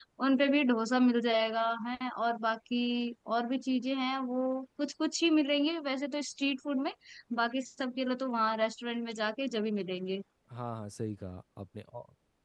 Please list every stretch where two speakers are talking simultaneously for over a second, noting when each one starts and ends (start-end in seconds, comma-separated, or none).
none